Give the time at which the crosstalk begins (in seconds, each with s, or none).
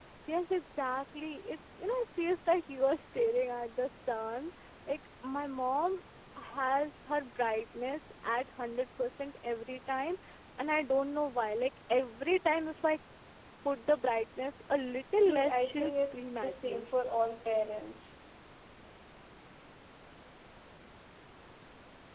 15.2 s